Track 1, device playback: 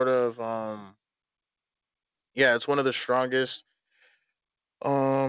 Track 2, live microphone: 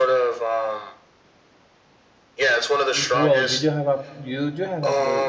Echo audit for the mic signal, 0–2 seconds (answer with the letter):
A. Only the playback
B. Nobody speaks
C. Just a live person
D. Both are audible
A